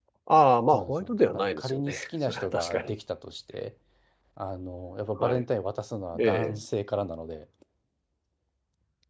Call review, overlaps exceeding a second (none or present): present